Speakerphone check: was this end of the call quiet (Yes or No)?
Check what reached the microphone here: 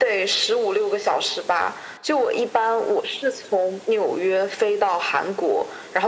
Yes